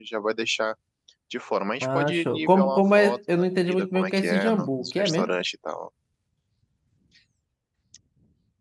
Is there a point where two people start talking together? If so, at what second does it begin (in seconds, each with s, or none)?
1.8 s